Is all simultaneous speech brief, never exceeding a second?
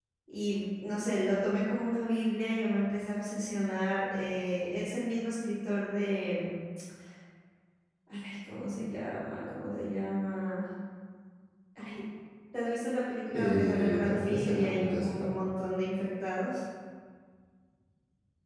No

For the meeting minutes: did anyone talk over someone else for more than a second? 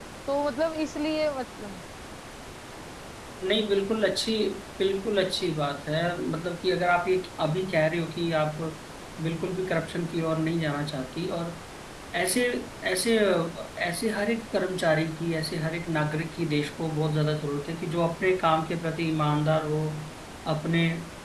No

